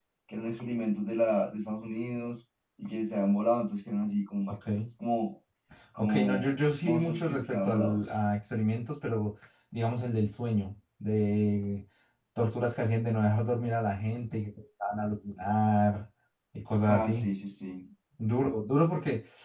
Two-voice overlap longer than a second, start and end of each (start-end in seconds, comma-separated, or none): 6.0-8.0